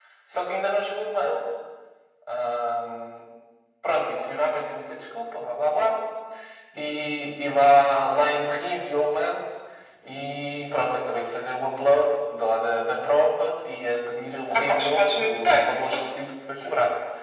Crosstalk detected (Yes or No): Yes